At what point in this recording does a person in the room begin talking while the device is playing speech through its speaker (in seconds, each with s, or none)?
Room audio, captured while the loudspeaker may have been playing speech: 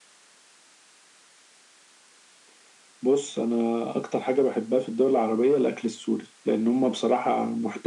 none